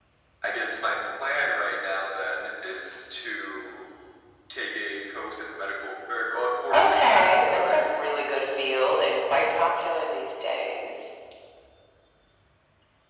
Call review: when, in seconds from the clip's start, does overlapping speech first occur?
7 s

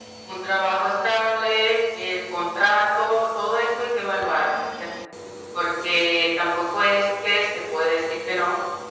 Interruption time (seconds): none

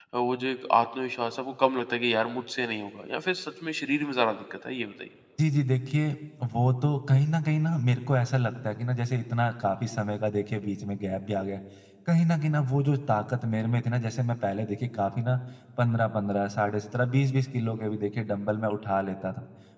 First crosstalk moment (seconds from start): none

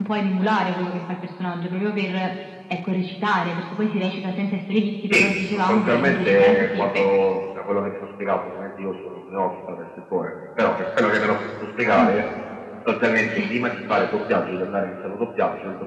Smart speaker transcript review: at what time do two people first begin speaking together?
5 s

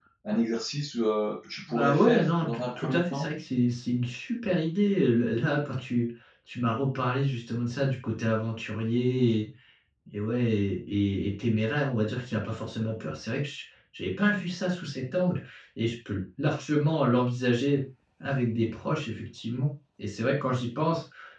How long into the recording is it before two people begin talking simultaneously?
2 s

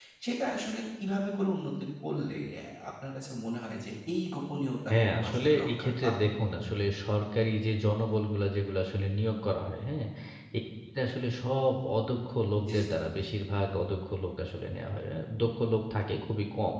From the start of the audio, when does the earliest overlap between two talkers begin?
5 s

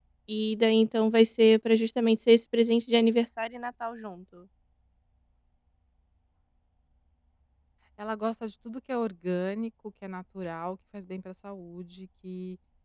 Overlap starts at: none

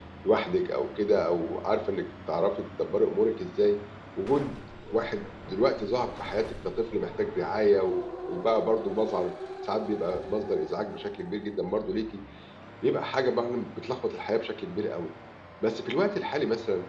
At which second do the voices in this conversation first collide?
none

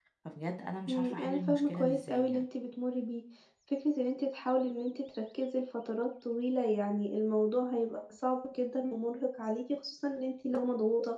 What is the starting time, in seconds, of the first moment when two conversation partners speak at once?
1 s

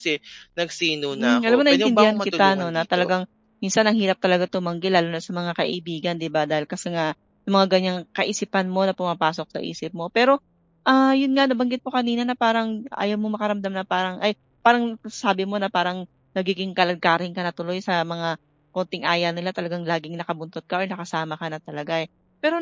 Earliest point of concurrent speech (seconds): 1 s

